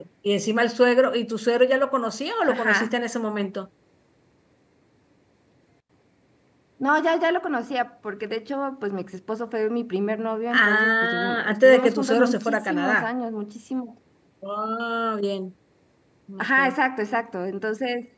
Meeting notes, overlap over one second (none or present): present